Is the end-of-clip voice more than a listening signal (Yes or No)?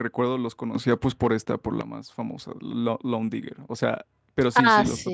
Yes